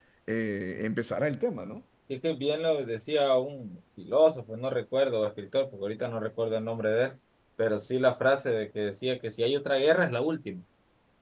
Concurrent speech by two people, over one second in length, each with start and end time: none

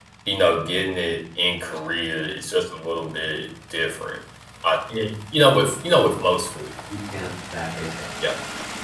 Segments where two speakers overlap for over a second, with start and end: none

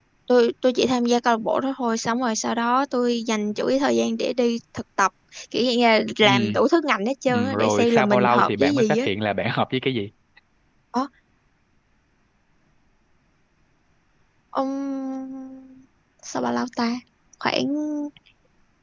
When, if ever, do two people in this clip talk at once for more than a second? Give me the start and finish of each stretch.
7.3-9.1

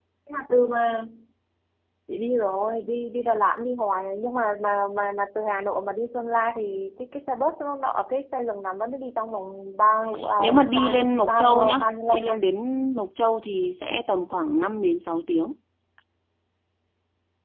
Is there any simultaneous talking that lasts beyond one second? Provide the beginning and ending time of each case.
10.4-12.3

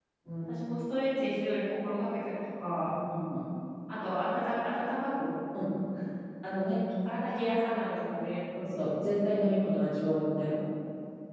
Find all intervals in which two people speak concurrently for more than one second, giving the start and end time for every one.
none

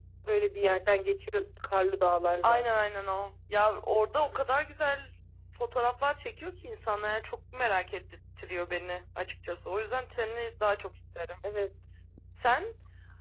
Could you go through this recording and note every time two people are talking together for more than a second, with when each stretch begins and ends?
none

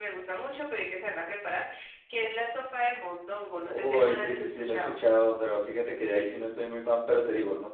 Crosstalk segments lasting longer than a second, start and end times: 3.7-4.9

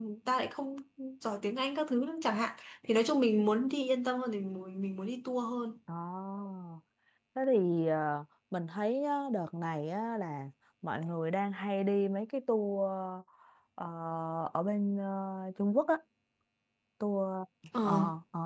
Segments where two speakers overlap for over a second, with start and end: none

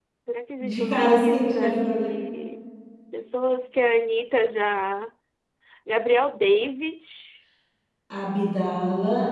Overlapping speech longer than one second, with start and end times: 0.6-2.1

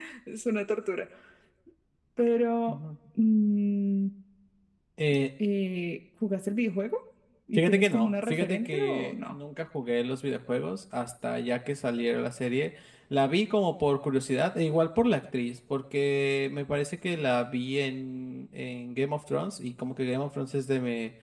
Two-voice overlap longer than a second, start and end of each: 7.5-9.4

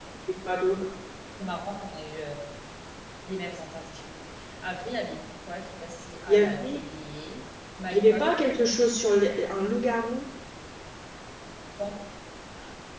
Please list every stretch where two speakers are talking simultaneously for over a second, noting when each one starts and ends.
none

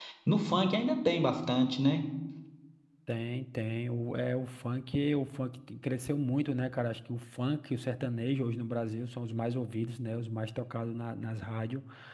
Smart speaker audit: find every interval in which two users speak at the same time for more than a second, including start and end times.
none

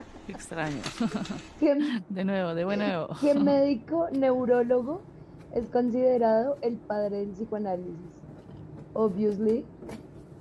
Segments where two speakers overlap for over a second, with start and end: none

